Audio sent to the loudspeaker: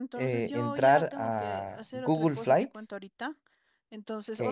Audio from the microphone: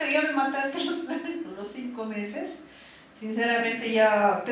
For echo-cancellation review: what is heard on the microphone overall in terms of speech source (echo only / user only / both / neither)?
user only